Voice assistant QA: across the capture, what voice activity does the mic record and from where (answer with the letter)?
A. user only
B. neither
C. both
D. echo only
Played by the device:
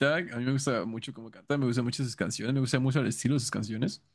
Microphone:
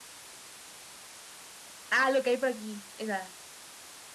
A